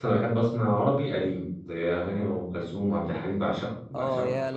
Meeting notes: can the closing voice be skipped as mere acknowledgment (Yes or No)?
No